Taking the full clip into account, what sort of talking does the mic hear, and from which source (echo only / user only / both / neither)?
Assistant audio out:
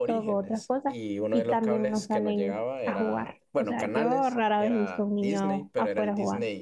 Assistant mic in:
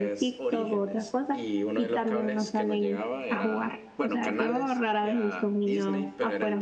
echo only